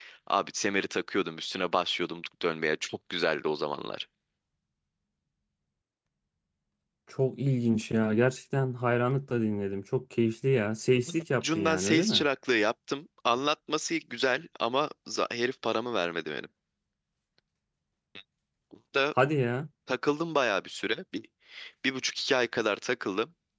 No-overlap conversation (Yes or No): No